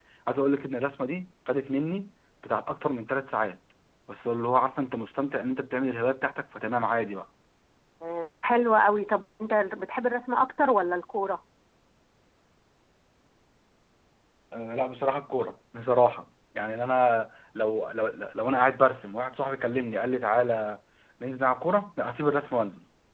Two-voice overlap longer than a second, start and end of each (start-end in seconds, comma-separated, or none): none